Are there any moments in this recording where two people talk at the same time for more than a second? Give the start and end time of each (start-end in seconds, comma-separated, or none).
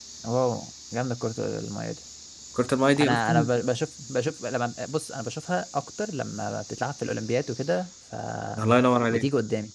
none